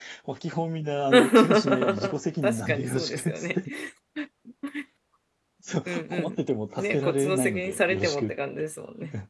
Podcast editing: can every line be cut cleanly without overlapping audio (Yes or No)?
No